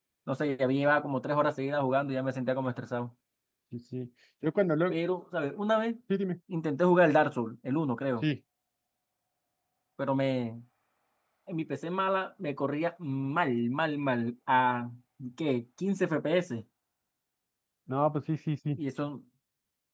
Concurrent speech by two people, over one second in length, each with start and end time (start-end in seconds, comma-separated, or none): none